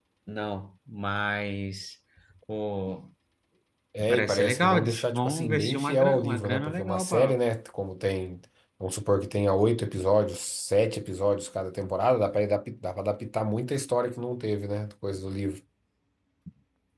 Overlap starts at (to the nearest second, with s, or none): 4 s